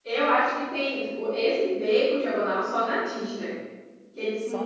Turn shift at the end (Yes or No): Yes